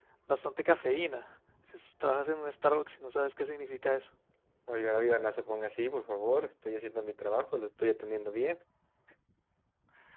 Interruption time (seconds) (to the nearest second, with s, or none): none